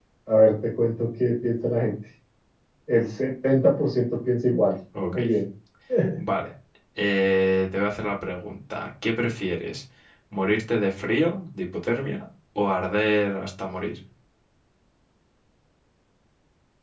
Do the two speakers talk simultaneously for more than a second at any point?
No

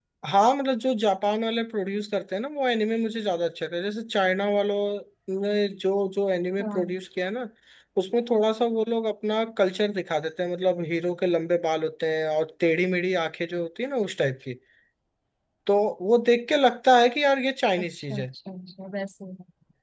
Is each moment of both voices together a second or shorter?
Yes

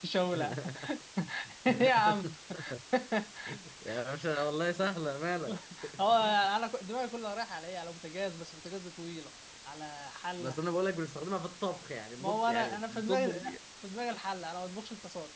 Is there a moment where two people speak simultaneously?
Yes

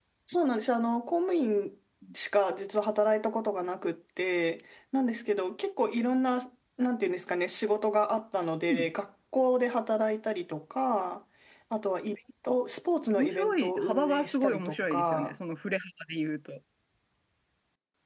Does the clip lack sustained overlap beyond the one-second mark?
No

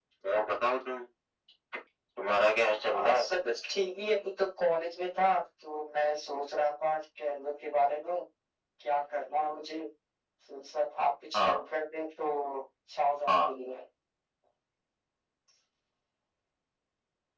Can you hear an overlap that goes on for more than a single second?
No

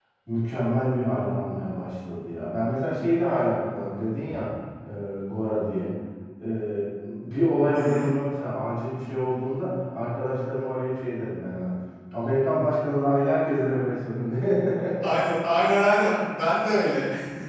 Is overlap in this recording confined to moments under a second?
Yes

